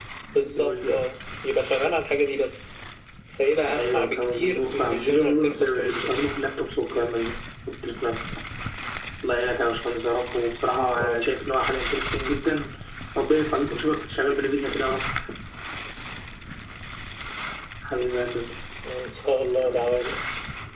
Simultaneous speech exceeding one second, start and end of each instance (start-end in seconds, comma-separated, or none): 3.8-6.2